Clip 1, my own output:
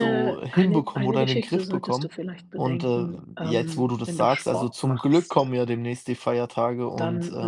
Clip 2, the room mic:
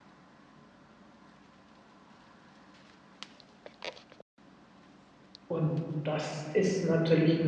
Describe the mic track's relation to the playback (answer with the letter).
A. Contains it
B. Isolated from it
B